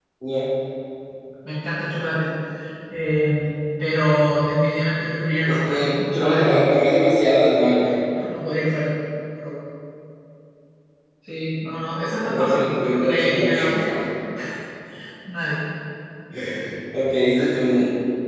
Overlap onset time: 5.5 s

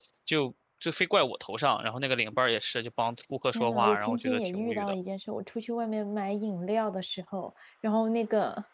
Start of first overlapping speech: 3.5 s

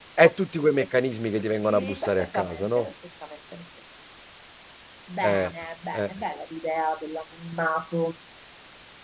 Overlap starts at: 1.6 s

